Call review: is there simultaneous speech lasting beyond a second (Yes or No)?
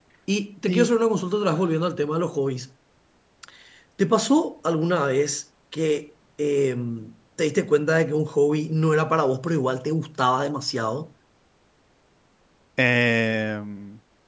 No